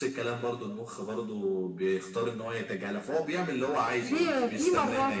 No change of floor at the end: No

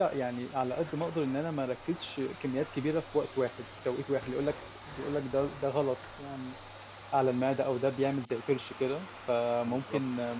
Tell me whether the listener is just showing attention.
Yes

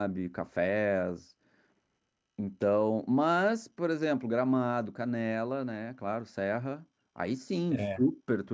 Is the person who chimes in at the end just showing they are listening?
Yes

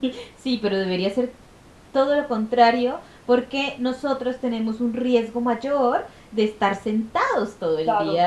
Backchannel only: No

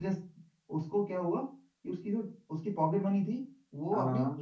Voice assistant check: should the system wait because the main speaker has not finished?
Yes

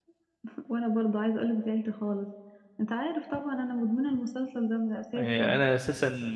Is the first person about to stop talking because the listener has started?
Yes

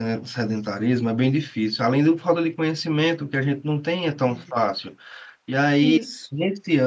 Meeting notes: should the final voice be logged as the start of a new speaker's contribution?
No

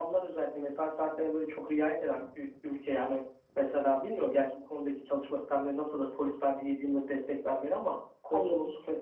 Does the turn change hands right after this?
No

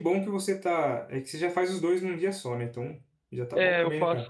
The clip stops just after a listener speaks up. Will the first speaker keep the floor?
No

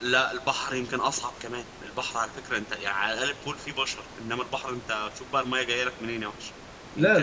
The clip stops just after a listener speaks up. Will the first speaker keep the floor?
No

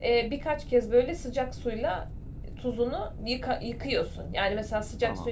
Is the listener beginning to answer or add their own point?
No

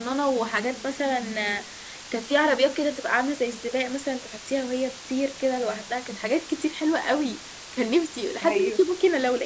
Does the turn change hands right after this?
No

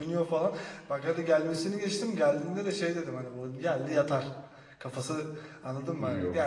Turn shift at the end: No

